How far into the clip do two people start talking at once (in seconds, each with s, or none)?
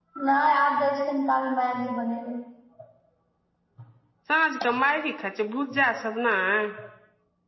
none